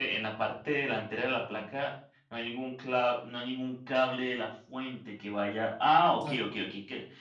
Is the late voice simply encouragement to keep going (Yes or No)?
Yes